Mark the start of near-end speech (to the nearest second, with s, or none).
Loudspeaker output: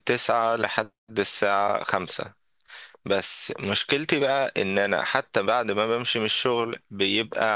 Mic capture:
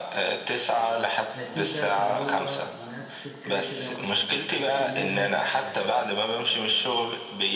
1 s